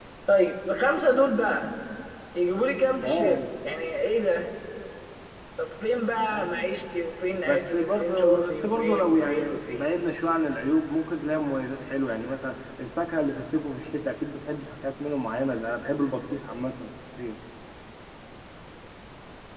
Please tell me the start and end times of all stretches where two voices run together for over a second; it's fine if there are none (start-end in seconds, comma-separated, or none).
7.4-9.8